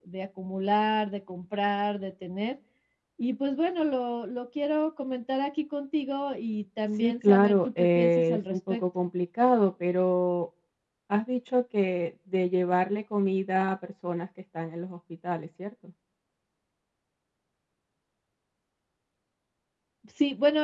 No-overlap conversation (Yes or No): No